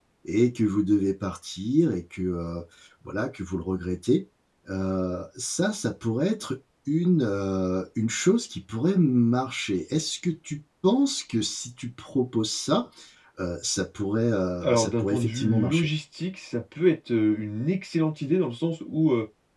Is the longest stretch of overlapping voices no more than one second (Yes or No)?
No